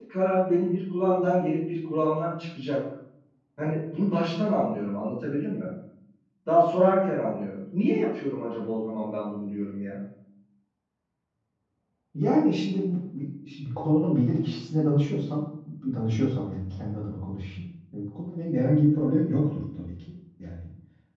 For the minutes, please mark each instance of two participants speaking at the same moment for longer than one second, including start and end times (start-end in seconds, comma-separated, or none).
none